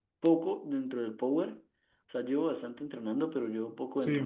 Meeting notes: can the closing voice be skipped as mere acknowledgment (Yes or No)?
Yes